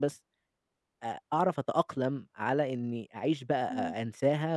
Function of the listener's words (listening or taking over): listening